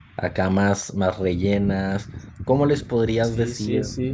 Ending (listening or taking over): taking over